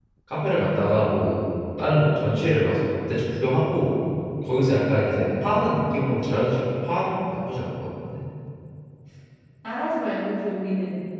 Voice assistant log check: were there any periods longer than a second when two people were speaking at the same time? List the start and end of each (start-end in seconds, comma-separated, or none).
none